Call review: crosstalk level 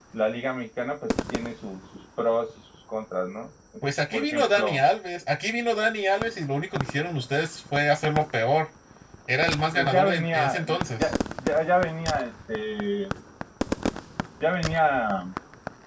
present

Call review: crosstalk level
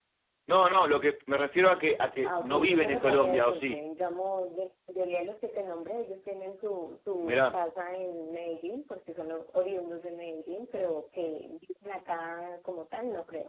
present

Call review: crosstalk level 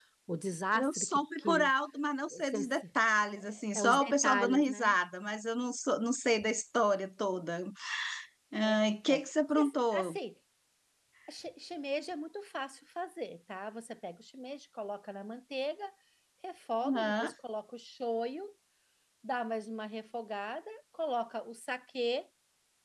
present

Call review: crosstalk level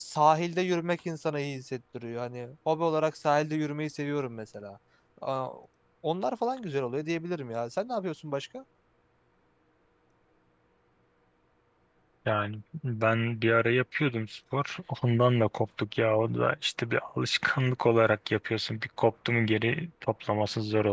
none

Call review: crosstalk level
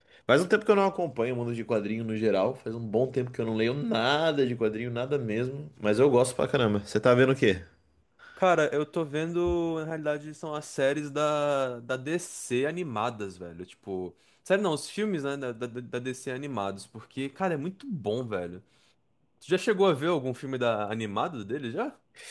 none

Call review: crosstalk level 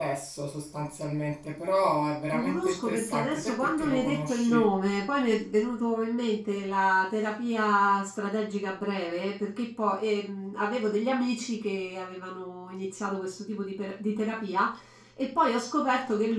present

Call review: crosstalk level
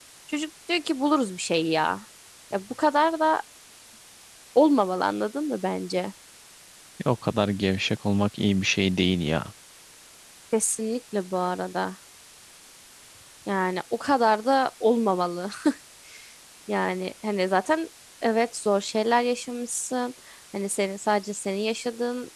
none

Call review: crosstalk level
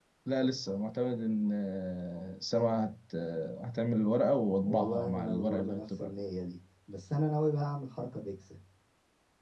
present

